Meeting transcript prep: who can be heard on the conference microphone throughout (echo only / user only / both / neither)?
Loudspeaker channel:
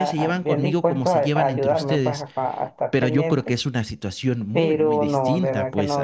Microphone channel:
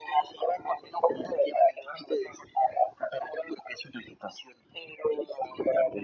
echo only